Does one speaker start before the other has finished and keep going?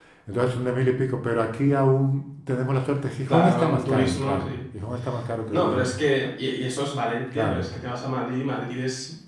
Yes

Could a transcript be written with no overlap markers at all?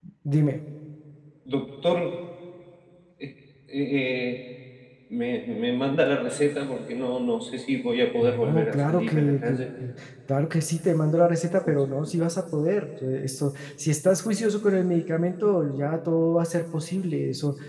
No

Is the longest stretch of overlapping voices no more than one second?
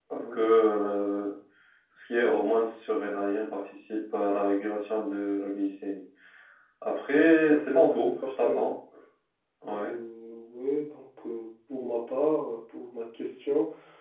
No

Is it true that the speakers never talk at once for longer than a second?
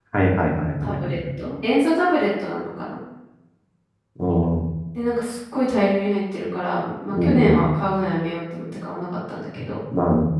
Yes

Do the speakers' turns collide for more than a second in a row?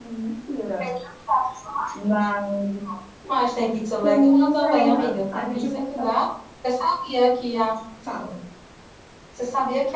Yes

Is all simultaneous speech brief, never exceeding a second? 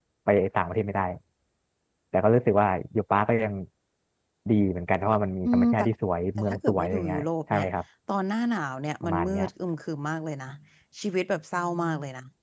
No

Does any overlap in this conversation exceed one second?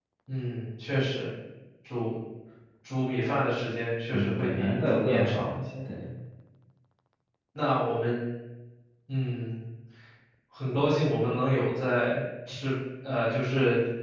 Yes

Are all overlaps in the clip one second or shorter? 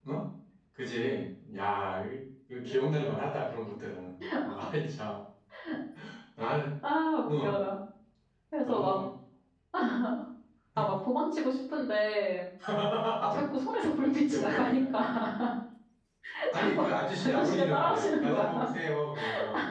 No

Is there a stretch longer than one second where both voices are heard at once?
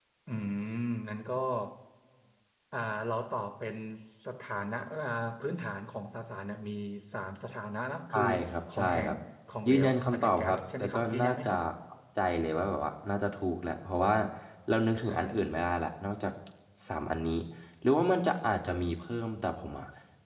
Yes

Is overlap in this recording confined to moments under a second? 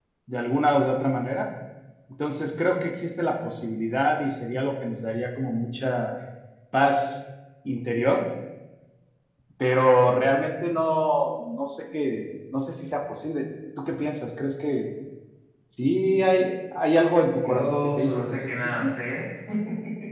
No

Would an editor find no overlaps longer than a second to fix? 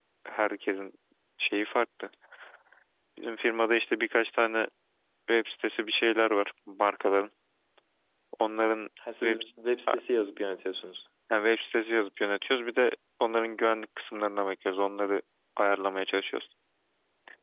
Yes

